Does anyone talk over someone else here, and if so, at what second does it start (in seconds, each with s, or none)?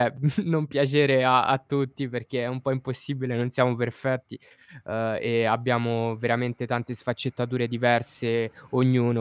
none